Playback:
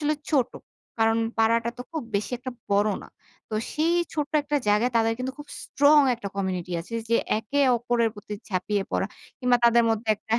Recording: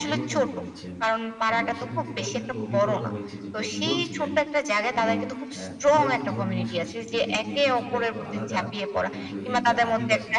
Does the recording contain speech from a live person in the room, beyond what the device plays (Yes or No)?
Yes